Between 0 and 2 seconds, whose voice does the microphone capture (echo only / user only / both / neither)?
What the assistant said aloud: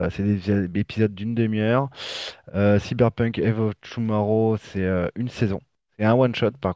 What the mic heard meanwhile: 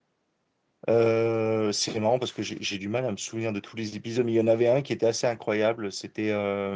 user only